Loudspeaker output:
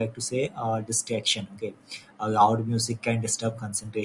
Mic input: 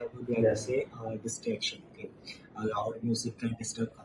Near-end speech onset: 0.4 s

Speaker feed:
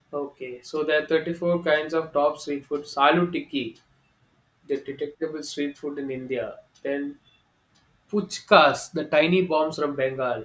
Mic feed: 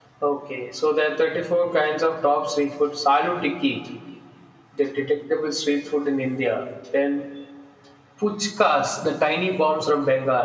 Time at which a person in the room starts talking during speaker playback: none

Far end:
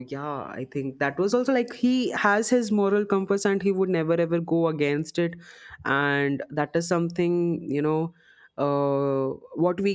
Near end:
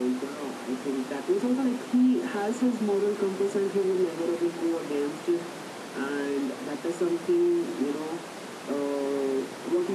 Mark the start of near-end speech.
none

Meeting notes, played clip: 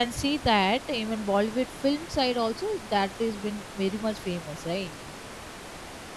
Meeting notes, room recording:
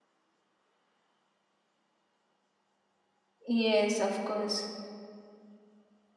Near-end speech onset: 3.5 s

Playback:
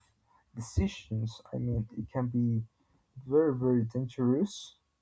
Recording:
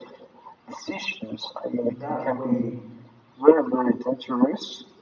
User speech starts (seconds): 1.8 s

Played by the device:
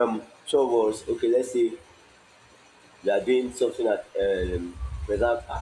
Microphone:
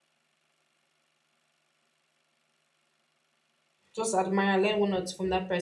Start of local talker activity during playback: 3.9 s

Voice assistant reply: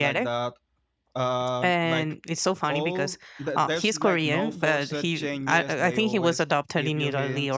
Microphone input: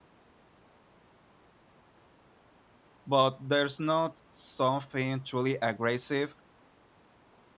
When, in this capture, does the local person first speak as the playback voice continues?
3.1 s

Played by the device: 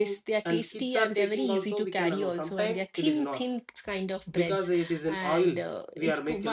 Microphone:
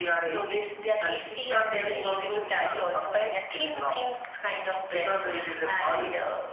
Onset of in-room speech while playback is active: none

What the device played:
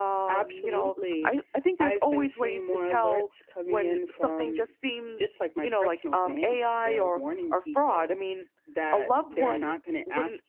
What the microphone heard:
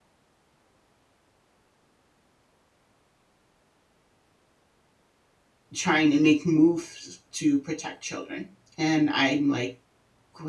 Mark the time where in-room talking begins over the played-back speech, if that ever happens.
5.7 s

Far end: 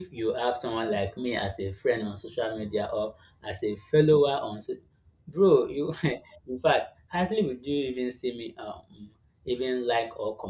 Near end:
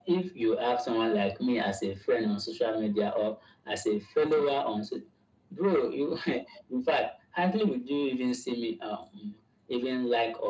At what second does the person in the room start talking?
none

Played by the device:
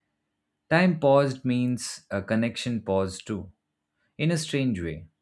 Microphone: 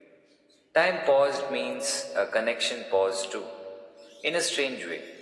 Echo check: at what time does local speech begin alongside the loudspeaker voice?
none

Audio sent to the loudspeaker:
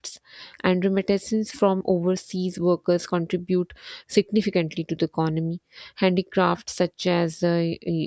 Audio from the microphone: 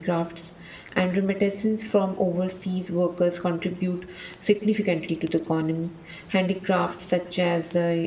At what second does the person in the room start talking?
none

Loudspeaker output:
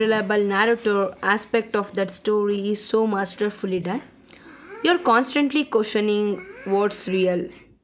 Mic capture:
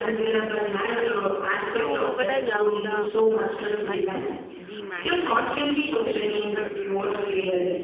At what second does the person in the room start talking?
1.7 s

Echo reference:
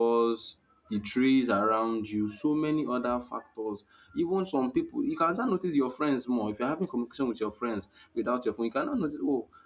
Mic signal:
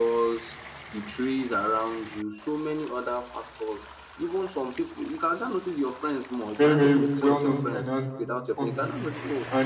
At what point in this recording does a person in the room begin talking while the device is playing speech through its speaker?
6.5 s

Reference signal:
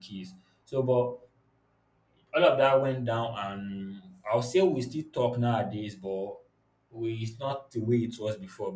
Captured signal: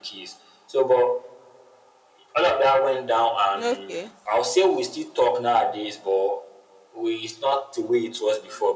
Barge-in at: 3.5 s

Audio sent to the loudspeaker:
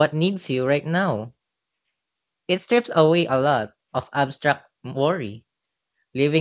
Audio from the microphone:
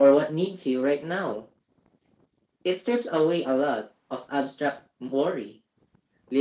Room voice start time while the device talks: none

